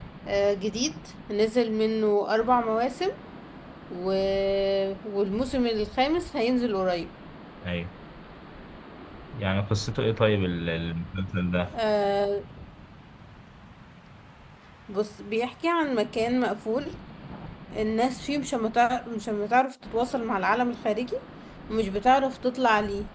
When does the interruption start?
none

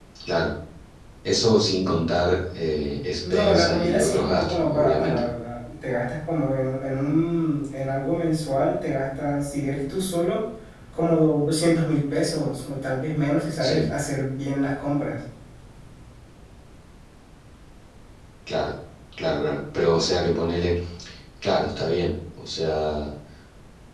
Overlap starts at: 3 s

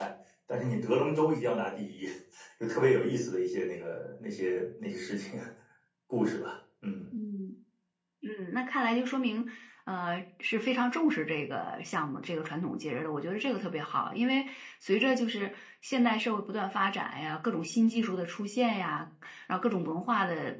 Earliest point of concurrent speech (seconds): none

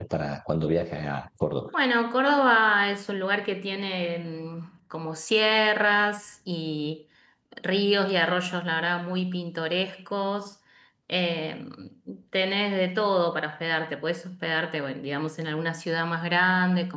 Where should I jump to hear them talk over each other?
none

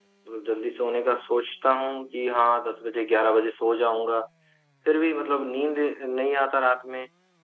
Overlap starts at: none

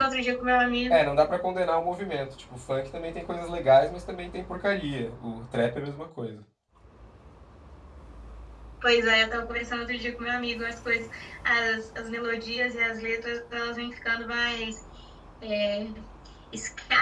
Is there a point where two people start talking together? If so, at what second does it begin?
none

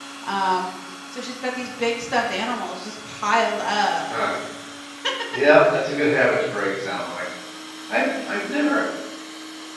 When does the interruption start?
none

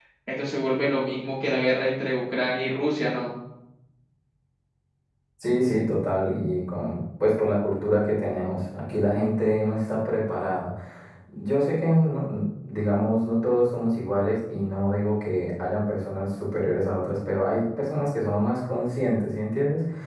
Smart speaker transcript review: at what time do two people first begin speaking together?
none

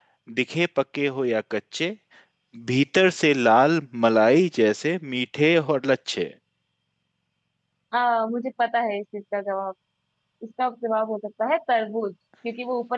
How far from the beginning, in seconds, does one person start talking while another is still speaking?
none

